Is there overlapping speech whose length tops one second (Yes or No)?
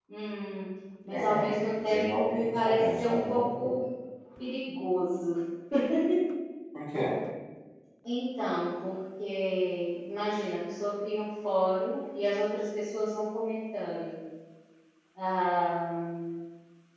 Yes